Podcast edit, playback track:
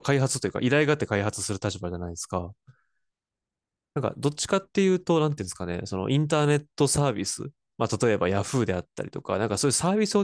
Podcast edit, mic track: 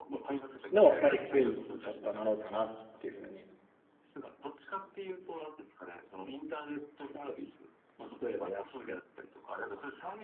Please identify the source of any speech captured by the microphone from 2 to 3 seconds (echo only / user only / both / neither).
both